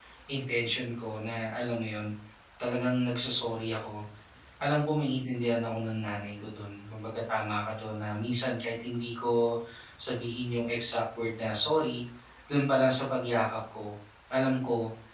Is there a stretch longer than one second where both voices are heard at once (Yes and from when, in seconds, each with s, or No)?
No